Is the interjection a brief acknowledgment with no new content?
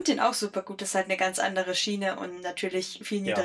Yes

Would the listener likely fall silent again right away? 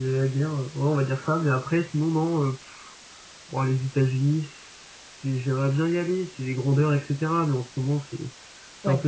Yes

